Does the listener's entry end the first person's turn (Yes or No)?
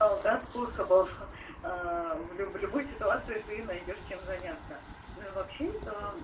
No